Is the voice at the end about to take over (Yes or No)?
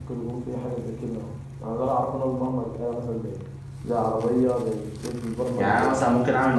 Yes